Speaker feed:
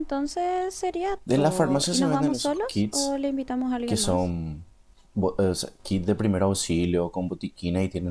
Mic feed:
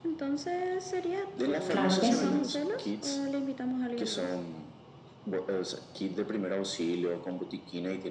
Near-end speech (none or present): present